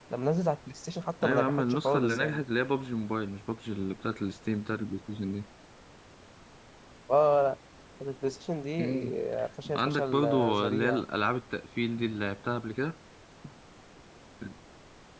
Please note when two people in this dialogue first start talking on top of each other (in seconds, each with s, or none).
1.2 s